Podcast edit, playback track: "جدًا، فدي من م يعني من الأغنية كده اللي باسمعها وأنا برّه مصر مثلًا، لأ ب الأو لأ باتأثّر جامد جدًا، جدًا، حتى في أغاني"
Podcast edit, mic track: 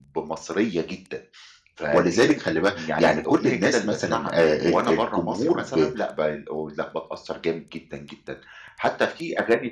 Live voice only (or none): ولذلك خلّي بالك يعني كل الناس مثلًا آآ ال الجمهور ب